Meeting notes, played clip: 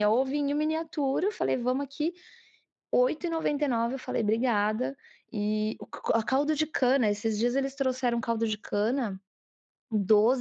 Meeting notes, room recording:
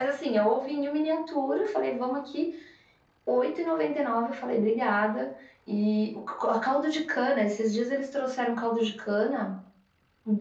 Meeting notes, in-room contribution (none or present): none